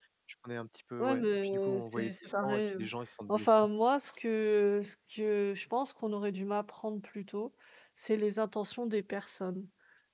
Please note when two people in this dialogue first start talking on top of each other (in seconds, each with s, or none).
1.0 s